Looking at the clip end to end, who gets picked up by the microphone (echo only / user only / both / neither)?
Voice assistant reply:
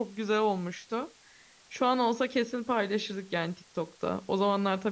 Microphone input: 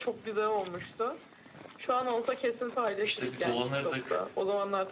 both